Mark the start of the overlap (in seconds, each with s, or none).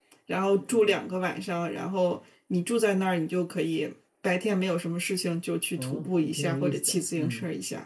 5.8 s